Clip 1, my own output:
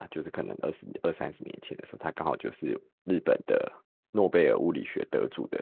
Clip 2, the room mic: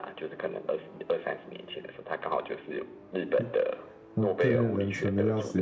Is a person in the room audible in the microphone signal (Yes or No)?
Yes